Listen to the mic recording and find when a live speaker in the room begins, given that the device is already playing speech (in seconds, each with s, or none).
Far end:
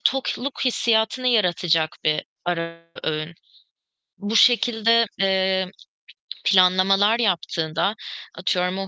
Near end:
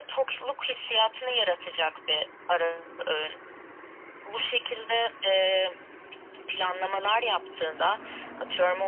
none